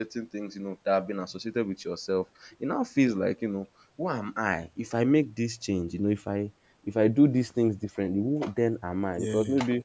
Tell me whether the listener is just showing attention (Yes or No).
Yes